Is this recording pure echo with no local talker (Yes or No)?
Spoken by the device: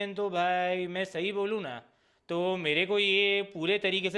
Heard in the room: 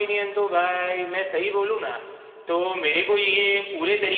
Yes